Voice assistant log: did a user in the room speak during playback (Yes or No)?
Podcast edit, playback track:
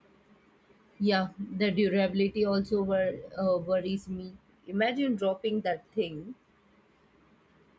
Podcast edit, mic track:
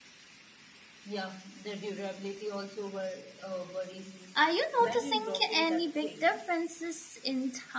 Yes